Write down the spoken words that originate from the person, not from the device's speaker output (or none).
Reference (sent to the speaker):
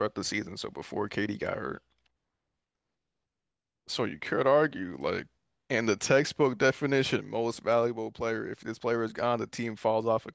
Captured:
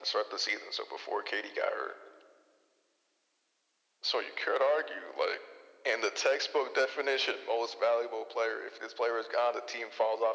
none